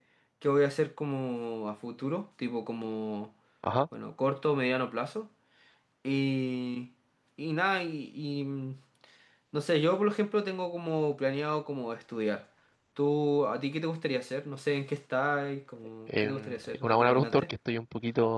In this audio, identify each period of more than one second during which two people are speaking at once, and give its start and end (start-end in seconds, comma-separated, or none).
16.1-17.5